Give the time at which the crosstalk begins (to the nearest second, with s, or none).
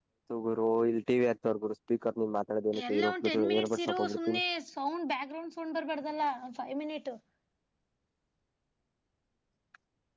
3 s